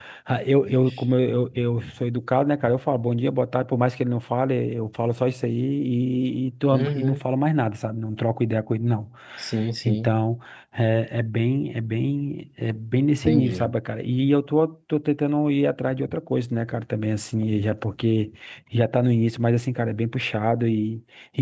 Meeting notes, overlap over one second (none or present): none